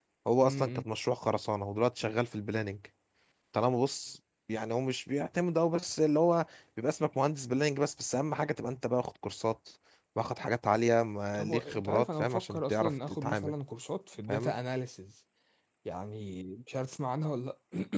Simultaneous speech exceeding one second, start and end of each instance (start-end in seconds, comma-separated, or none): 11.3-13.5